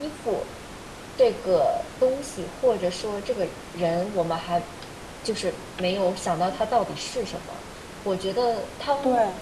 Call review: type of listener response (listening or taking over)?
listening